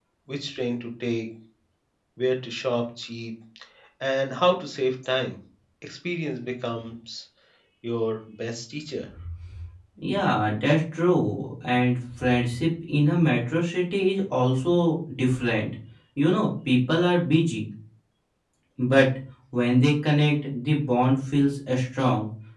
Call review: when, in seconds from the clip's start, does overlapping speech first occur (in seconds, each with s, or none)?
none